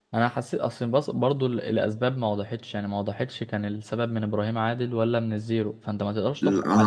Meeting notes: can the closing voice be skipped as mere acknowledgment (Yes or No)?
No